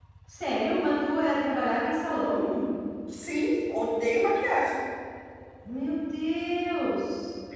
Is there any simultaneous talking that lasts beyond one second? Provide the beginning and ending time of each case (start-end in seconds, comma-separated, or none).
none